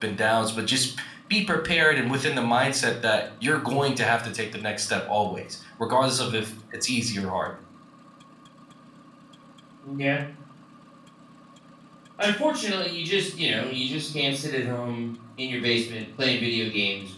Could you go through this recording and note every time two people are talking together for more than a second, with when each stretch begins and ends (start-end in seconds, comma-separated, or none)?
none